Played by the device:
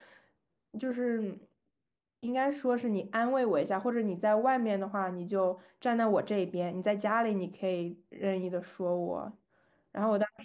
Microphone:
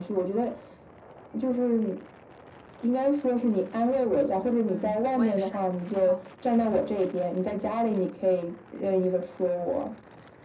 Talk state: both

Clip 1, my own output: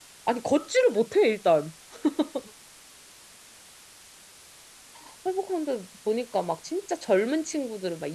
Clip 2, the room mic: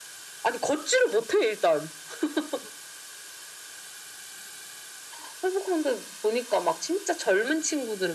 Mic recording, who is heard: echo only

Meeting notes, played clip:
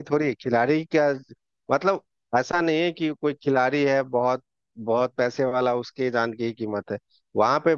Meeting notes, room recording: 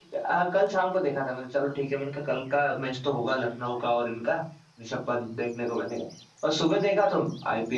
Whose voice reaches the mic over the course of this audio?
user only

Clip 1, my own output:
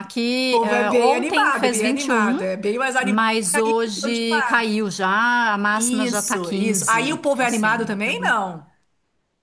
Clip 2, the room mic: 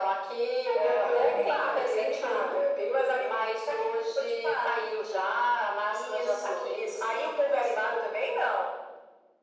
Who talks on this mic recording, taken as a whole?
echo only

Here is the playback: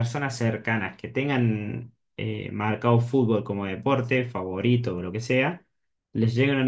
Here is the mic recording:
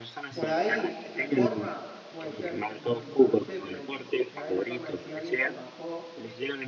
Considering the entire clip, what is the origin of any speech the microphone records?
both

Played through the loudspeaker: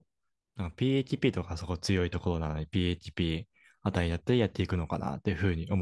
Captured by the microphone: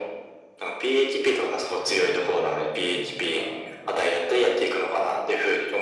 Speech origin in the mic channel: both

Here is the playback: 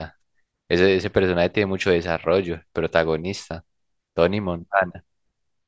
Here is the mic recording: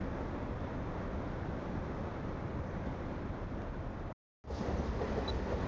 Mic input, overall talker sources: neither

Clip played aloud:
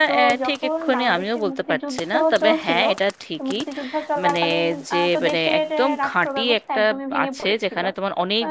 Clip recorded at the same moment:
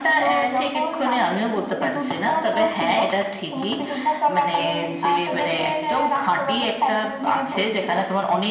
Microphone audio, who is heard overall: both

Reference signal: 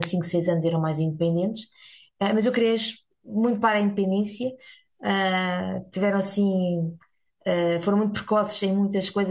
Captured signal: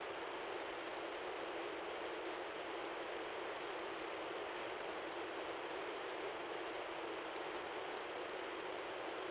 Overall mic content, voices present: neither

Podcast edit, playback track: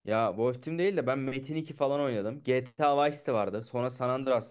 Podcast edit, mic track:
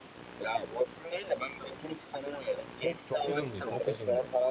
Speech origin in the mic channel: both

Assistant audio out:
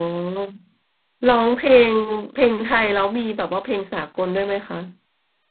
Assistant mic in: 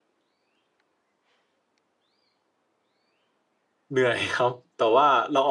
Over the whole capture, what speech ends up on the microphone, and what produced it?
user only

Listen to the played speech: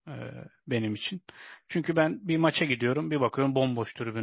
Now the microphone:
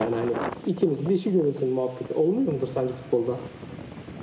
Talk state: user only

